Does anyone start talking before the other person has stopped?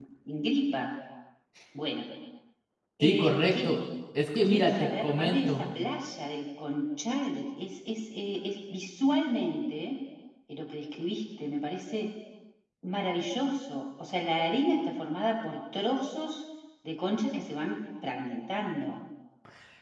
Yes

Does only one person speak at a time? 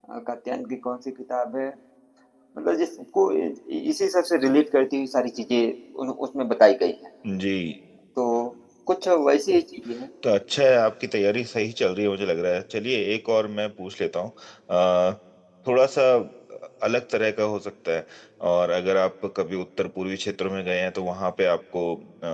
Yes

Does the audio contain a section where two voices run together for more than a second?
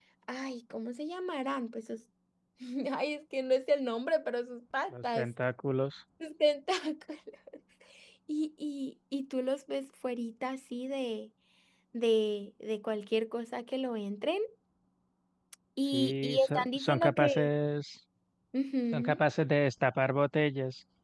Yes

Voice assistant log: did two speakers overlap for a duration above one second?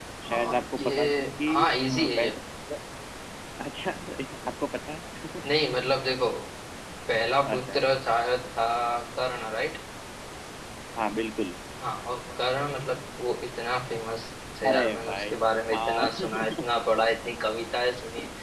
Yes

